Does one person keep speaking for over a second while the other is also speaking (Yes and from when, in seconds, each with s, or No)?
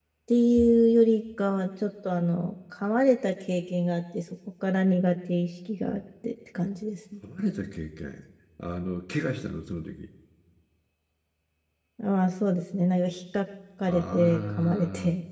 Yes, from 13.8 s